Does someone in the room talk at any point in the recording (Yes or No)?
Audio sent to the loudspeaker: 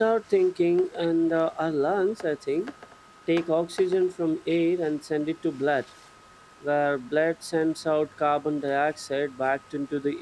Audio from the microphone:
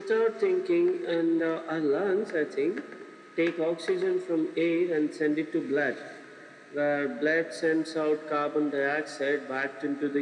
No